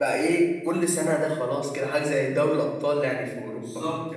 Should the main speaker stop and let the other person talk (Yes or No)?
Yes